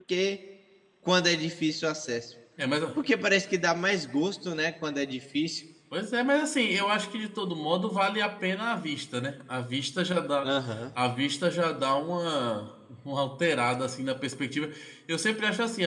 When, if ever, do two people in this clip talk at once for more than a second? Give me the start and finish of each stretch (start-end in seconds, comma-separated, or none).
none